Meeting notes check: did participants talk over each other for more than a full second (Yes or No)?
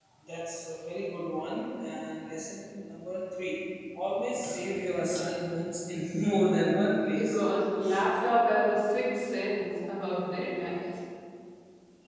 No